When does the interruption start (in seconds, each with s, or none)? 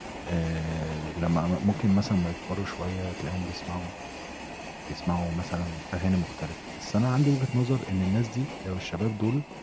none